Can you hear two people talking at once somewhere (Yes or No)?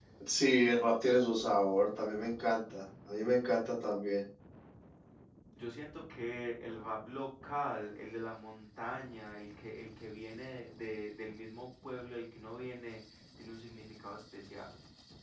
No